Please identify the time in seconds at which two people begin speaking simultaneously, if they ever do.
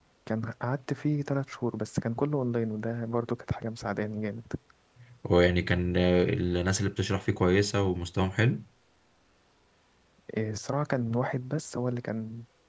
none

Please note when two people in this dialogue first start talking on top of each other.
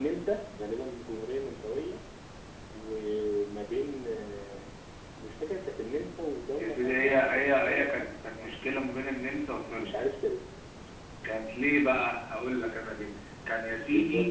7 s

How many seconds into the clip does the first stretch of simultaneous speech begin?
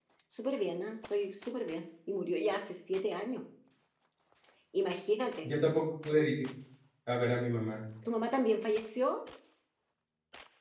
none

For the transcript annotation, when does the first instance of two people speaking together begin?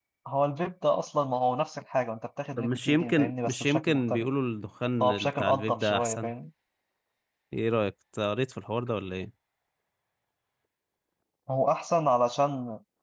3 s

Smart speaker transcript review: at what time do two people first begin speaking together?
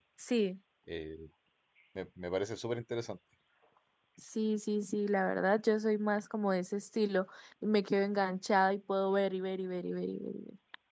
none

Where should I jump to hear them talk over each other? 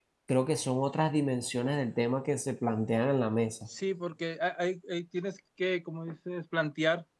none

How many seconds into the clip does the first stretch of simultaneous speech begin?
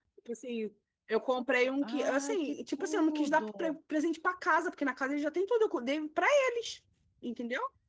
2 s

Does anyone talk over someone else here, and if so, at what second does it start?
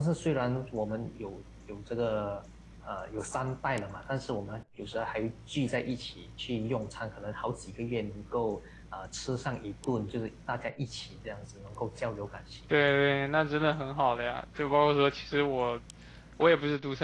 none

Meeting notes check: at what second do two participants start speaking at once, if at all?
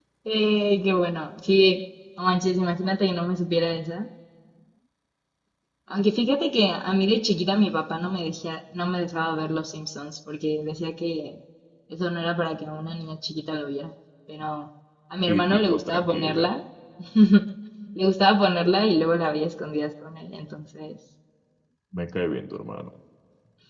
15 s

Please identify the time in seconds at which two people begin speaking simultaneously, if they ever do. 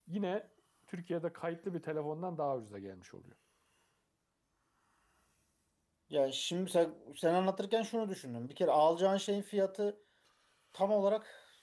none

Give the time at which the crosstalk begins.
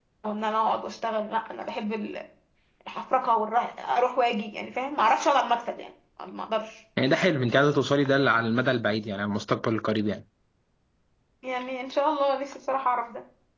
none

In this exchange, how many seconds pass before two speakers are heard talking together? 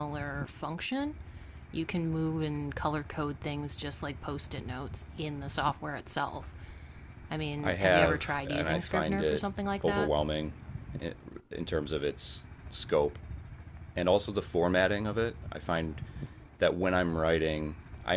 8 s

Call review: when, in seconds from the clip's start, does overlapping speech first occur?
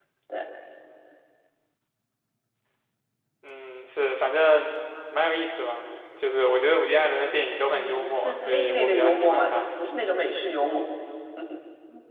8 s

